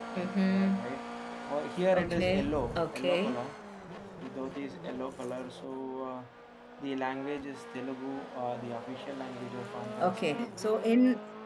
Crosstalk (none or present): present